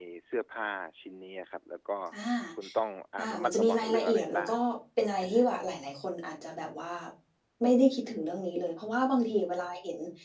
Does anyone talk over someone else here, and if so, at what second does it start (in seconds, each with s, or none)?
3.2 s